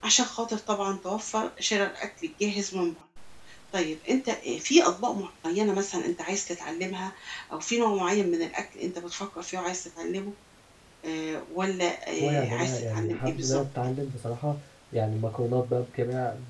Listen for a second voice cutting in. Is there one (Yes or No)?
Yes